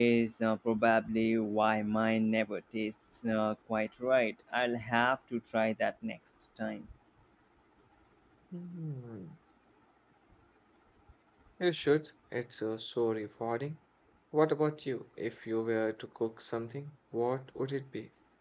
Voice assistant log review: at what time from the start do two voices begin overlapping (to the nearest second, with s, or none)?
none